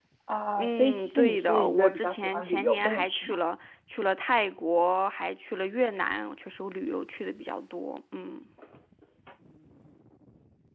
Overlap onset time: 0.6 s

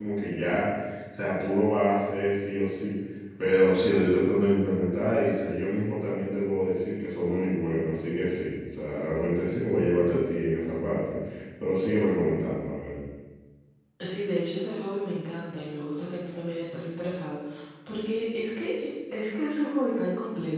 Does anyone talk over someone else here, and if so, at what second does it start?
none

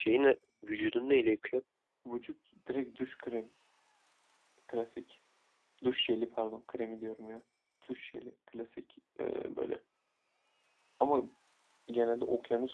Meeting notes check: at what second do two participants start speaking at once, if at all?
none

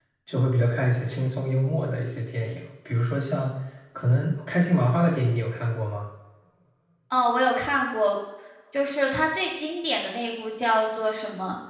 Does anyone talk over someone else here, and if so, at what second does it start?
none

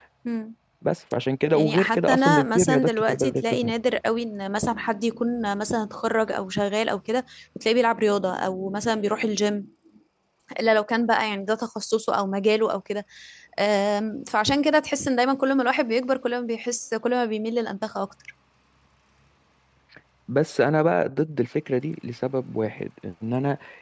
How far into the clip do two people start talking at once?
1.5 s

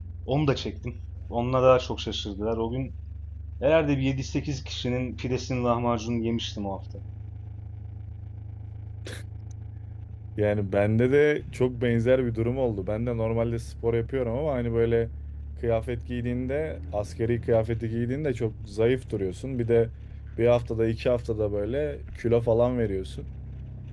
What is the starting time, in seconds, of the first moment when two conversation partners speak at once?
none

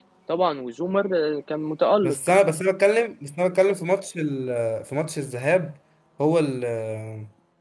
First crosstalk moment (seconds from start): none

